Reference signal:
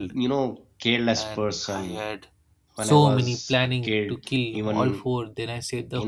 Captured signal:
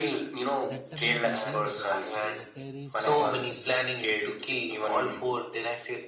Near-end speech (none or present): present